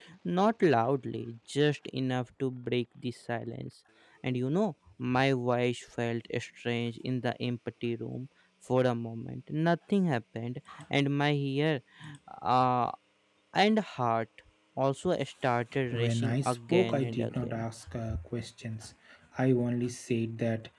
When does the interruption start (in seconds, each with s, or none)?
15.9 s